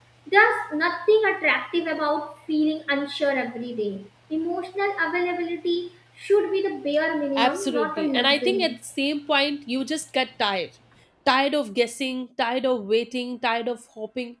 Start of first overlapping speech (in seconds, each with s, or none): 7.4 s